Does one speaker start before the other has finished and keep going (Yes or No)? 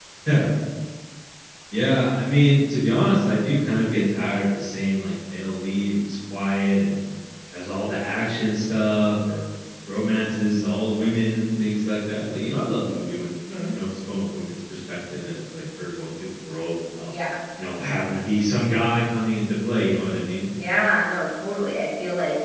No